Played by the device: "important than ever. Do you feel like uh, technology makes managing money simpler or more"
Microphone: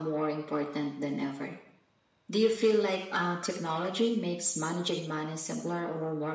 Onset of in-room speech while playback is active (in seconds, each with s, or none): none